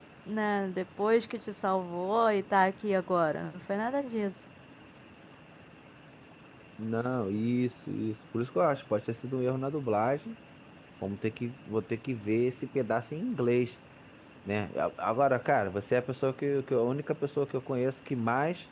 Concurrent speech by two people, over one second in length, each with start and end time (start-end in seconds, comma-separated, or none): none